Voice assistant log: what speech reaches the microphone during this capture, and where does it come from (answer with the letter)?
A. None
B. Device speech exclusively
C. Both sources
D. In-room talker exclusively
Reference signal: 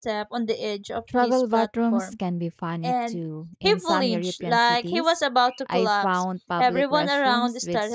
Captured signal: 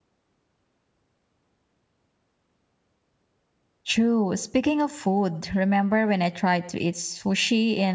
D